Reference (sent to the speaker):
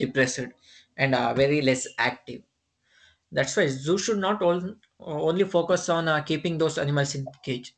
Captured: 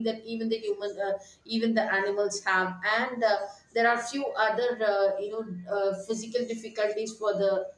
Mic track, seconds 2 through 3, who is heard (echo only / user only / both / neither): user only